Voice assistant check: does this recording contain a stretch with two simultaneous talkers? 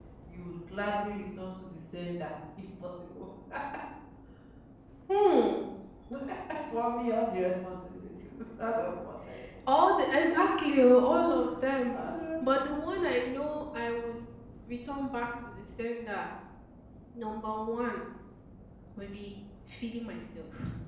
No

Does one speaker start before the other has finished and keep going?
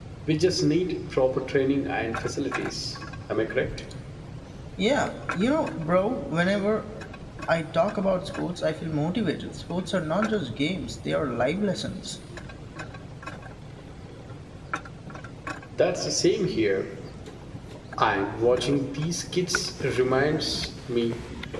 No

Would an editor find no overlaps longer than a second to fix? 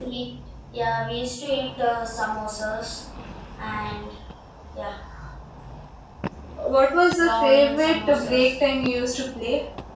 No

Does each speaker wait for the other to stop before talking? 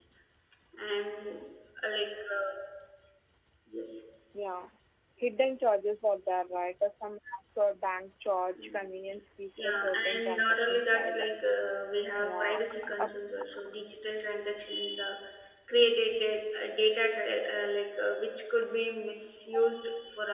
No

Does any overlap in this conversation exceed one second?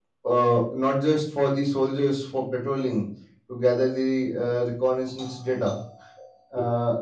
No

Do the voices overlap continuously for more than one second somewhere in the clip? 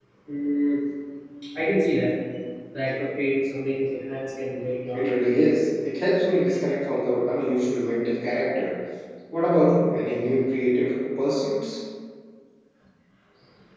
No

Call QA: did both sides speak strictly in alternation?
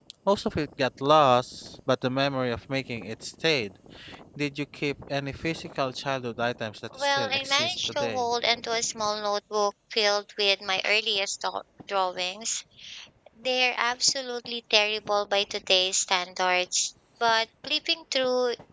No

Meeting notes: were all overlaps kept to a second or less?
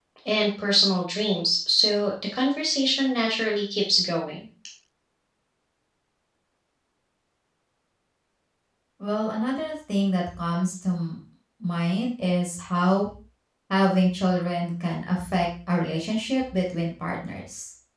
Yes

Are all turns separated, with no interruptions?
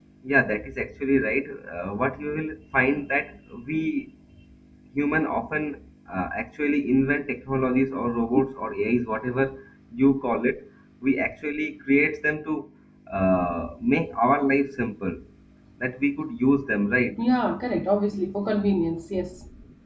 Yes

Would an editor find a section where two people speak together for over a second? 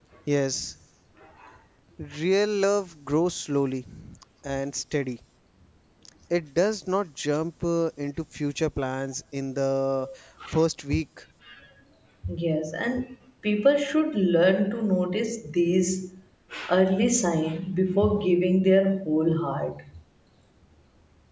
No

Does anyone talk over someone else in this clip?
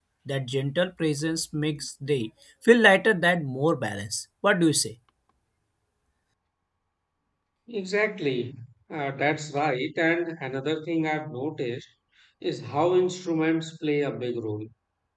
No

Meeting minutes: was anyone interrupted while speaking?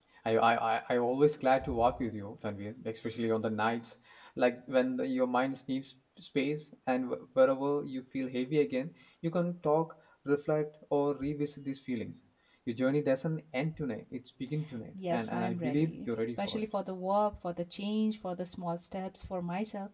Yes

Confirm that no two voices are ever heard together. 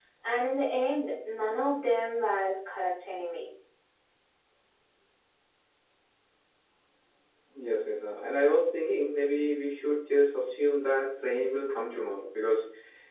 Yes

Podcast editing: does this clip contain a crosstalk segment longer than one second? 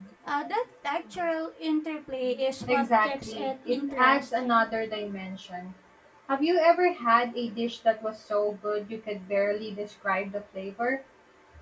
Yes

